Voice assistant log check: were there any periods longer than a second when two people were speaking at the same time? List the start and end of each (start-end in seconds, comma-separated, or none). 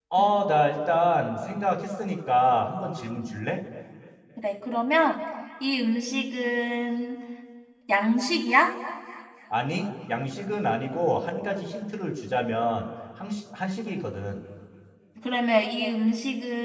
none